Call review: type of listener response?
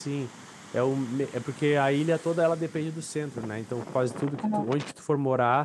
listening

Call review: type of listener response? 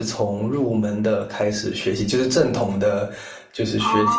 listening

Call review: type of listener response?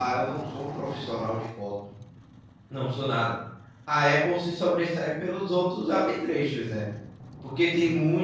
listening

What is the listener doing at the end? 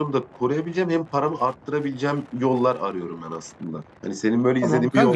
taking over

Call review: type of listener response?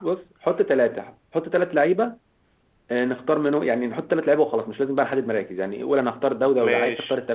listening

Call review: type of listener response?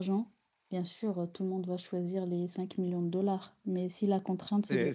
taking over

